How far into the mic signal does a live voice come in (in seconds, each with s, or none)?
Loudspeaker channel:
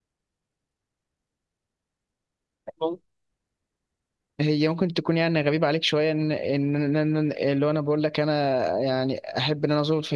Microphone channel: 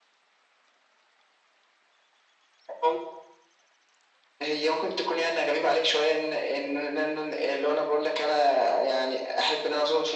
none